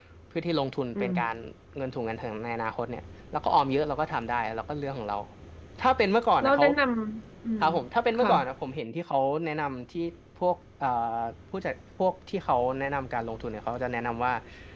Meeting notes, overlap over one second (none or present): none